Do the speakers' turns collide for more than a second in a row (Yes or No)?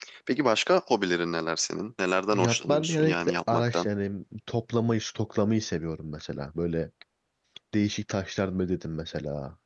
Yes